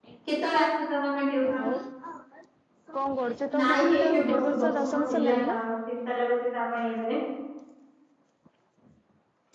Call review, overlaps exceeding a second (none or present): present